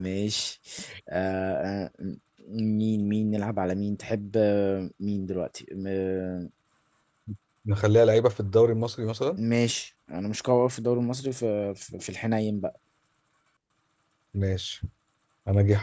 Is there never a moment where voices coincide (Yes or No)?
Yes